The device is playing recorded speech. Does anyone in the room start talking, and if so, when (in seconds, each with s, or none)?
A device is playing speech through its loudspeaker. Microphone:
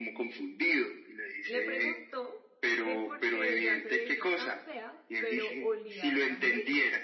1.4 s